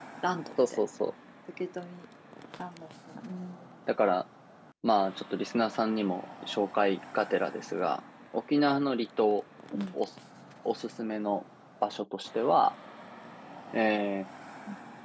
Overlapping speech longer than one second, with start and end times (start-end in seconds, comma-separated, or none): none